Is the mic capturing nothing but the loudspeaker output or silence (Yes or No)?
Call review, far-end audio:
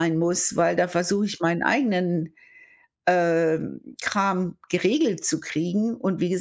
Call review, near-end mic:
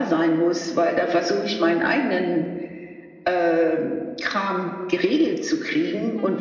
Yes